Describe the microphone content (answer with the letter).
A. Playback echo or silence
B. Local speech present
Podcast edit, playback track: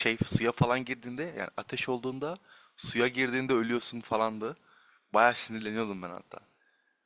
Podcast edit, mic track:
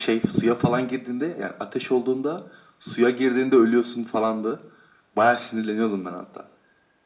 A